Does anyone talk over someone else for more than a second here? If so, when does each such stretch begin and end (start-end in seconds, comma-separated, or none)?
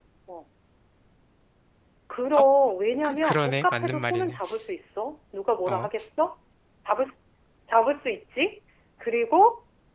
3.0-4.4